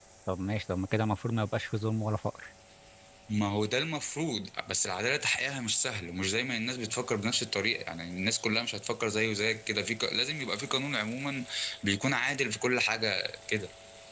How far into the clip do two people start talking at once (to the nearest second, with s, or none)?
none